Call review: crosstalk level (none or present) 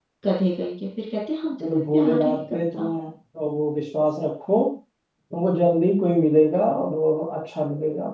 present